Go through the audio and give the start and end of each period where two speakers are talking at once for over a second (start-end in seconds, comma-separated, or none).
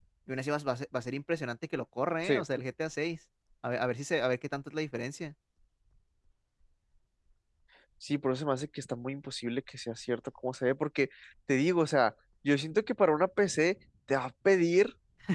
none